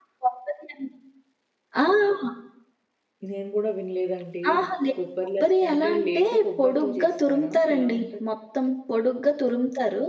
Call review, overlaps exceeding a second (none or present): present